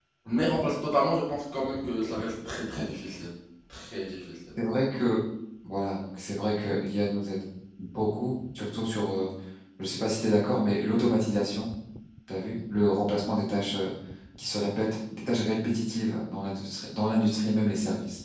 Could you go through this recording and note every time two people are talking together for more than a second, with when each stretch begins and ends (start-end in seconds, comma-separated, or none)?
none